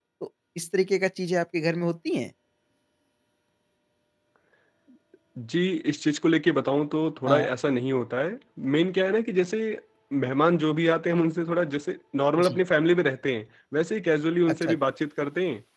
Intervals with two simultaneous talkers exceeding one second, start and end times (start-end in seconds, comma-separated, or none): none